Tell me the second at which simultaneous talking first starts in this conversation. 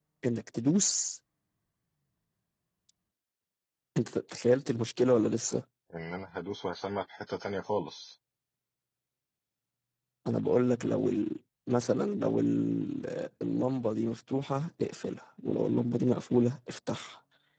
none

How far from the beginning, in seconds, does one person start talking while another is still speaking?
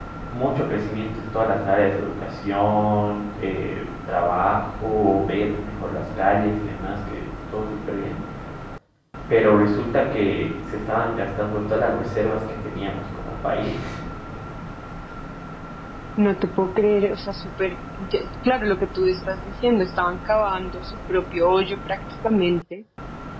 none

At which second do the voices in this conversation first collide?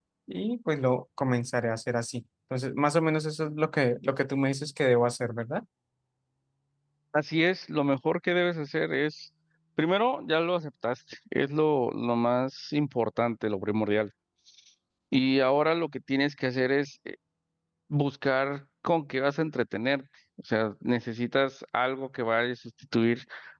none

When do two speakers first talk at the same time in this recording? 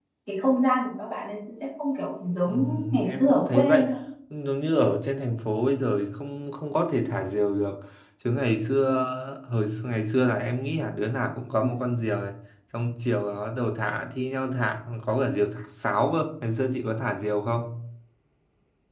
2.5 s

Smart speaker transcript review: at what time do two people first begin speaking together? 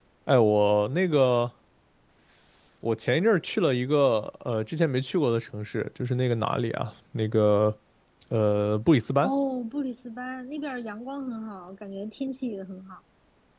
none

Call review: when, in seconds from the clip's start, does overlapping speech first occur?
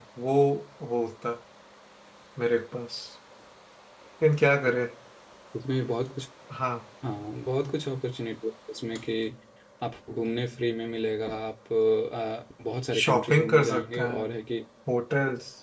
13.0 s

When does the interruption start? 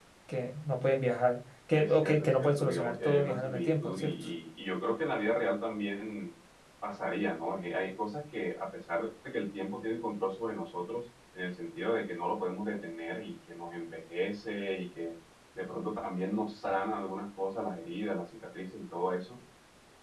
1.7 s

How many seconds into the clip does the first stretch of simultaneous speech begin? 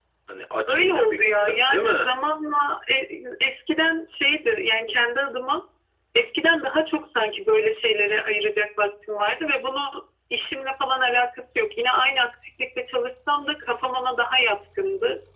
0.7 s

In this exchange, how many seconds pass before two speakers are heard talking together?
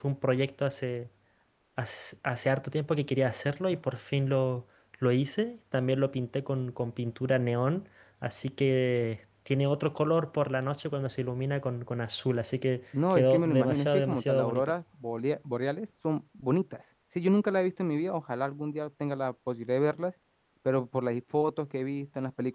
12.9 s

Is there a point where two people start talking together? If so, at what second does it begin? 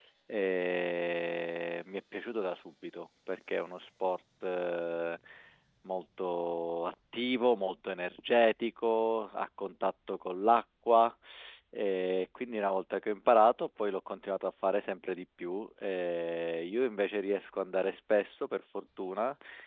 none

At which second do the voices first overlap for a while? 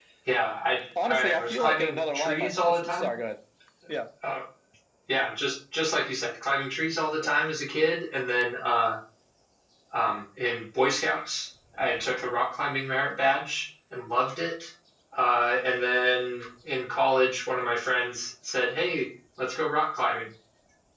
1.0 s

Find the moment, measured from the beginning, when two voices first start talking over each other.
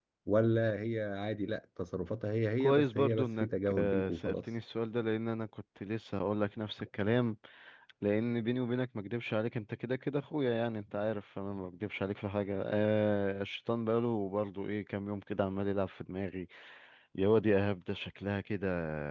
2.6 s

